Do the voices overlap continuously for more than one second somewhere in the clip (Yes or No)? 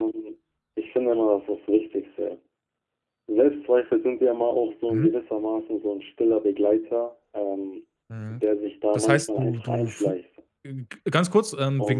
Yes